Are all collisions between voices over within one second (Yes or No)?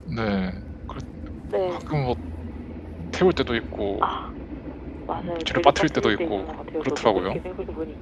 No